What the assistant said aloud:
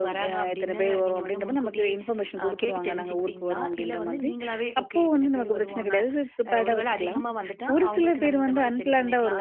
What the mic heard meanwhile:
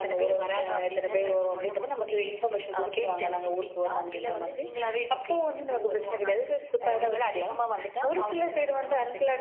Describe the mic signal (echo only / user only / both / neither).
echo only